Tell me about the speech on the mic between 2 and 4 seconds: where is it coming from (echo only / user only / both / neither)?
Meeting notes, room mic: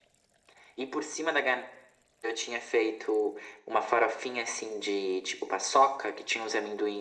echo only